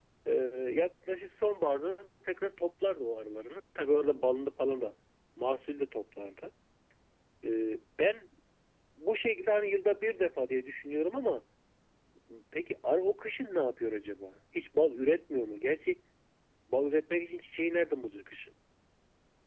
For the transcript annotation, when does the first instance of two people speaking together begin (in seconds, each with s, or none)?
none